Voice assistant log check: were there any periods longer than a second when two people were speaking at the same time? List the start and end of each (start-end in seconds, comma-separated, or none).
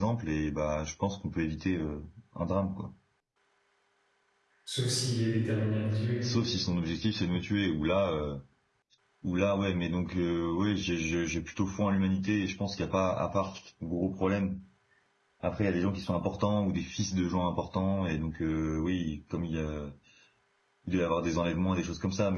none